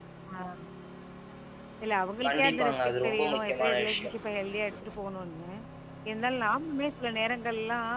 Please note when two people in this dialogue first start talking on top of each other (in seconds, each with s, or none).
2.3 s